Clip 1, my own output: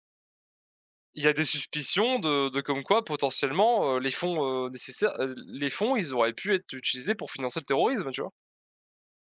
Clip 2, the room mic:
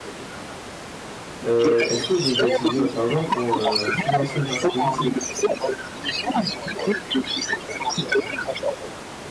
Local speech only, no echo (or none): heu: «Est-ce que vous avez déjà utilisé votre argent pour, heu, financer une partie politique?»